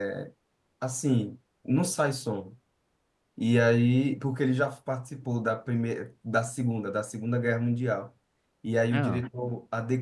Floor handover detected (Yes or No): No